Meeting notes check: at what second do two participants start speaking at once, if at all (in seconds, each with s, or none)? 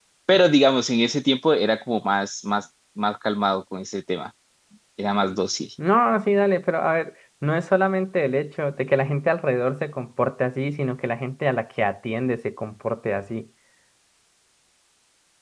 none